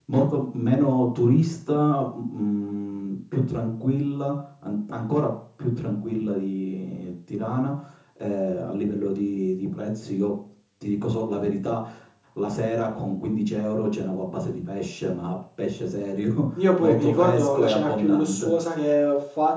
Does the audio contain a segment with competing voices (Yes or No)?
Yes